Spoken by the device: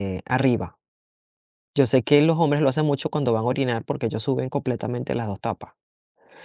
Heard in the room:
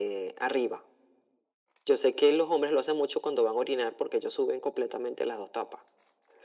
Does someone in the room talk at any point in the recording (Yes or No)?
No